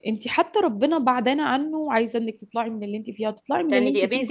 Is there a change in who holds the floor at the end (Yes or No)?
Yes